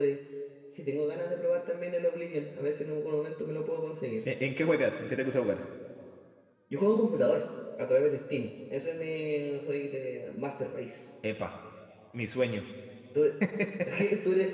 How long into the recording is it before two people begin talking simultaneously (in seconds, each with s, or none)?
none